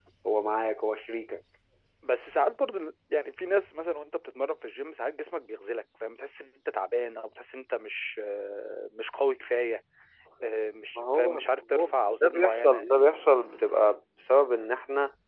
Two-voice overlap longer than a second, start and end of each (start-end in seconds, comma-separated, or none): 11.0-13.0